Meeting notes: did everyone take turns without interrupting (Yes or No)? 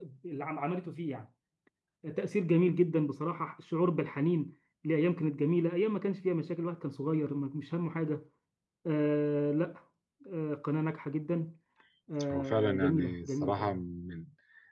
No